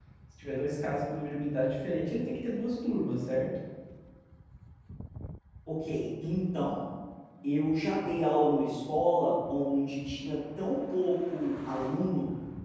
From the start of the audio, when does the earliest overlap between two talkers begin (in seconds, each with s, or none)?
none